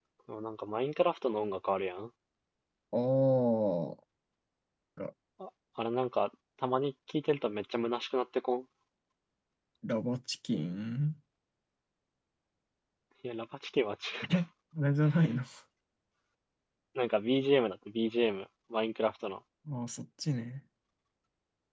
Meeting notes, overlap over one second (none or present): none